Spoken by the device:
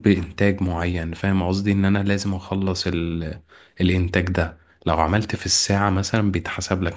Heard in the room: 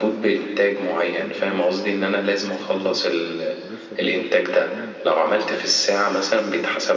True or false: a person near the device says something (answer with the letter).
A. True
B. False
A